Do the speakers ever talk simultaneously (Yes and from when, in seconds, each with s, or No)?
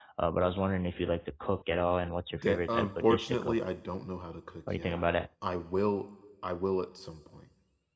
Yes, from 2.4 s